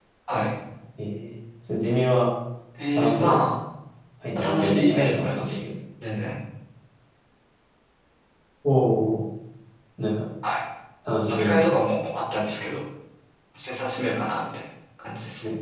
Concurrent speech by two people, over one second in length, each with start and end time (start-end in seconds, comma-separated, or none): 4.4-5.6